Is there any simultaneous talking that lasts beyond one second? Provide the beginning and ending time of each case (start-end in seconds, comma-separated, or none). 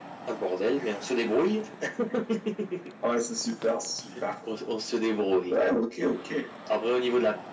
none